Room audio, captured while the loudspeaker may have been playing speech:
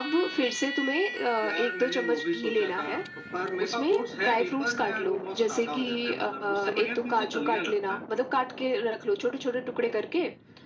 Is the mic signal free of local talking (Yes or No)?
Yes